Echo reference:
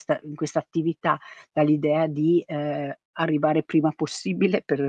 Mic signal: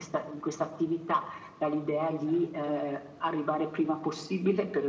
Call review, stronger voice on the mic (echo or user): echo